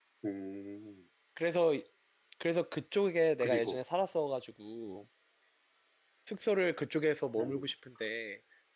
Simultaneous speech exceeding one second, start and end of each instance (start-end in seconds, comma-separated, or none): none